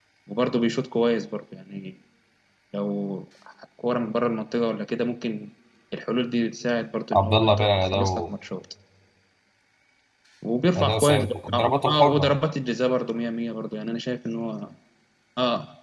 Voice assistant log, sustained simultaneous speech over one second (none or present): present